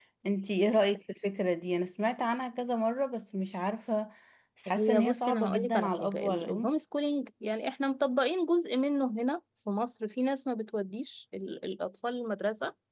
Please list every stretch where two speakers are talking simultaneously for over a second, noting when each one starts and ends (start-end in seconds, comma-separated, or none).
4.7-6.7